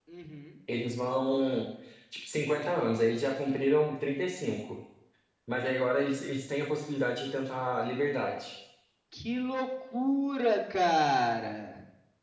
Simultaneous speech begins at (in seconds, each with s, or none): none